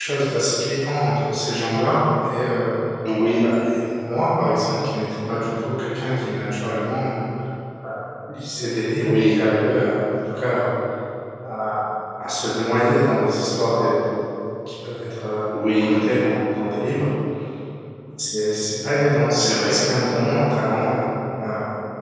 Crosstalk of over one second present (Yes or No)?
No